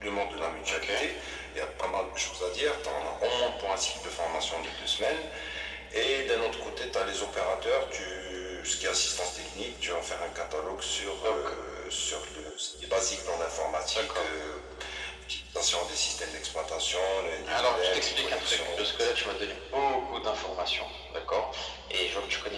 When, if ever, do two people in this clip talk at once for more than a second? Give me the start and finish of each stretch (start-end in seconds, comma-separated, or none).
17.5-19.2